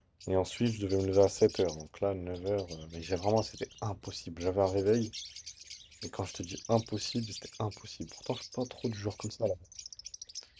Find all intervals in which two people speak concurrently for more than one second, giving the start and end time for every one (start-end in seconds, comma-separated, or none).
none